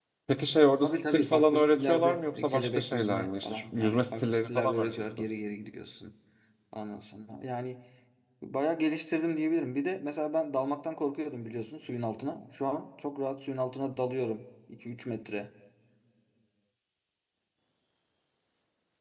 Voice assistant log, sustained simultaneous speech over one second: present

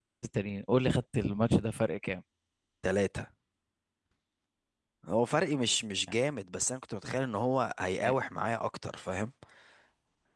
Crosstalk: none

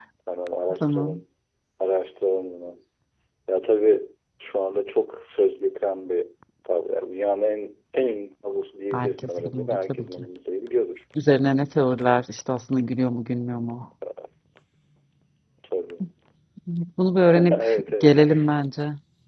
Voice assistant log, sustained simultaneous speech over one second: present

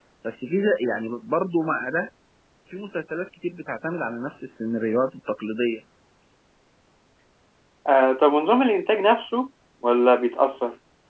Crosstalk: none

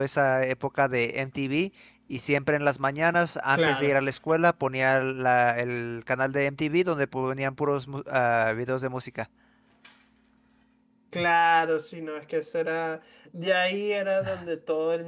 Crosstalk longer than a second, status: none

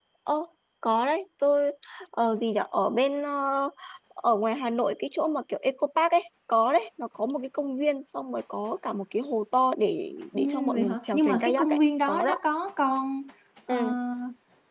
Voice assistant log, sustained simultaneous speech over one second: present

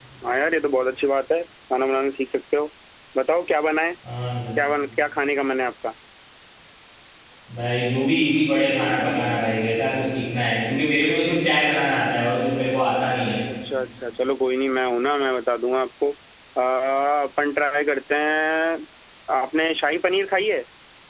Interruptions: none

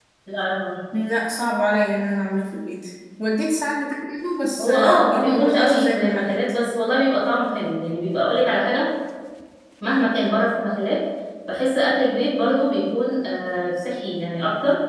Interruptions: present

